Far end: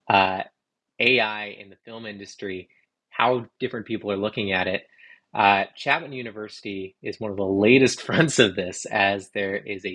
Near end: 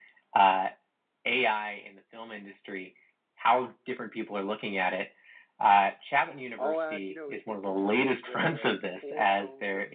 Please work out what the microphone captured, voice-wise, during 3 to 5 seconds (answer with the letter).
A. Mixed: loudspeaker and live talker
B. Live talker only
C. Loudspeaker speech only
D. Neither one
C